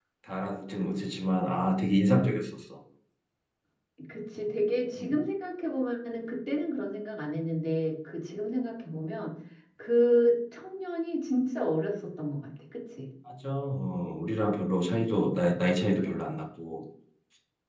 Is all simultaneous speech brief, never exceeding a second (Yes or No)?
Yes